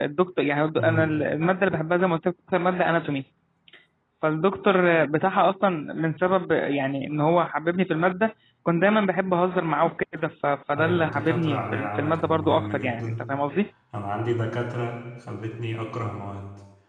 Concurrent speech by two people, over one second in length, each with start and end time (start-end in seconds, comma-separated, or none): 10.8-13.1